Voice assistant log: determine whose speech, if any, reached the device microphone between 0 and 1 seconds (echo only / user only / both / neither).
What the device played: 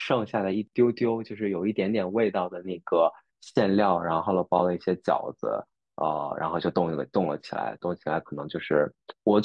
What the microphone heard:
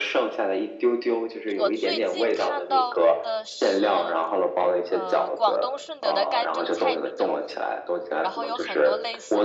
echo only